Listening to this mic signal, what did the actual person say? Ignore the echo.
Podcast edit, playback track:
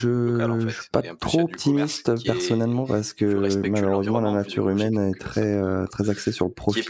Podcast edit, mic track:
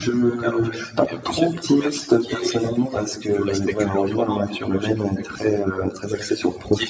none

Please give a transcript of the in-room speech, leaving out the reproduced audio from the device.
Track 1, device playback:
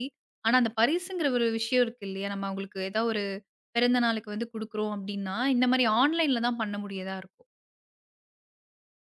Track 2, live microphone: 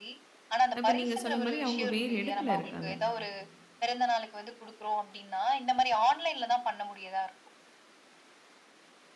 இப்ப நீங்க சொன்ன மாரி அவங்க வேறு இடத்துல இருக்காங்க.

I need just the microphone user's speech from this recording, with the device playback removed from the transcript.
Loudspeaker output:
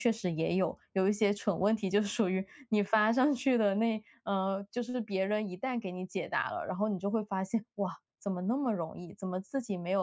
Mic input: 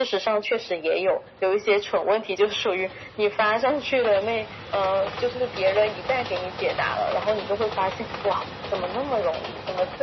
none

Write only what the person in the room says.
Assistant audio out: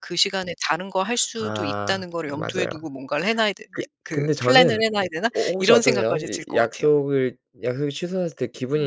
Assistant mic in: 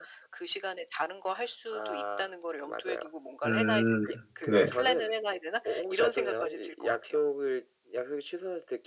음. 네.

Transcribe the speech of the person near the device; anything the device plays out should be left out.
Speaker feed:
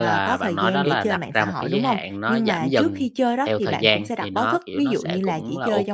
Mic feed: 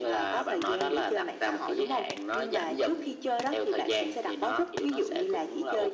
none

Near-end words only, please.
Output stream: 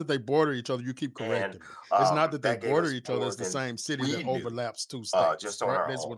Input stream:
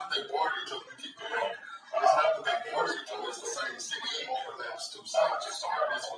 none

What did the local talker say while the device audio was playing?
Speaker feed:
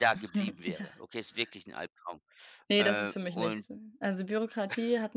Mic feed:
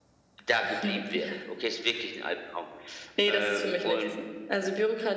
none

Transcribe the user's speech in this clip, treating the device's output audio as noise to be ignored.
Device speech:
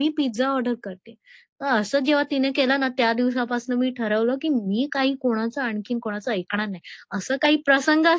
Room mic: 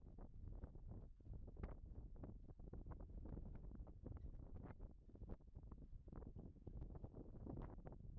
none

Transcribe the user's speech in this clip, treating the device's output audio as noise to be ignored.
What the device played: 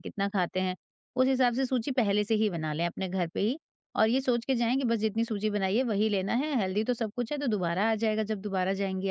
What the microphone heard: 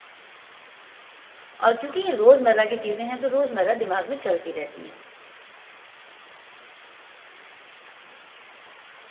और क्योंकि ये रोज़मर्रा की चीज़ें हैं, तो रोज़मर्रा दिमाग में चलती रहती हैं।

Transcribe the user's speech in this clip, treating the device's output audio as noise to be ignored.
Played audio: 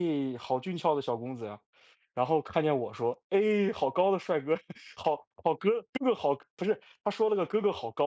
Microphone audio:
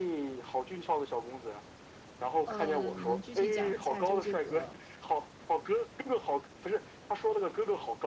呃，你能具体讲一下，就这个

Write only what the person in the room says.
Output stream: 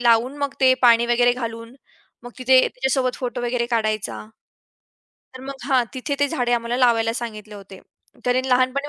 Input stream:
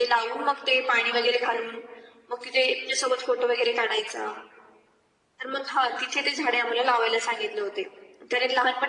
none

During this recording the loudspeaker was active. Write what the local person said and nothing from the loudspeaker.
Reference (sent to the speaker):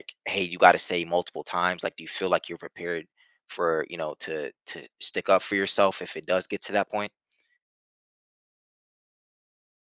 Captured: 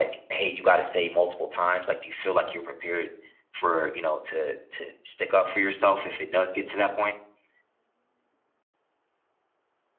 none

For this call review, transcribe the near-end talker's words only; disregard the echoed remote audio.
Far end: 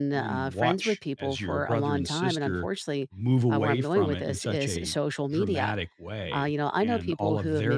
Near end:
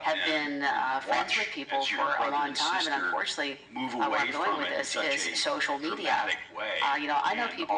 none

